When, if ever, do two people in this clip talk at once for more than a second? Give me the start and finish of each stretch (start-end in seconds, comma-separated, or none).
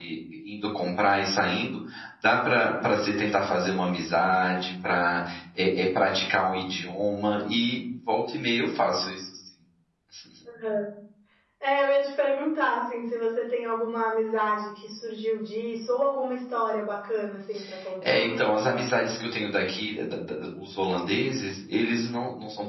none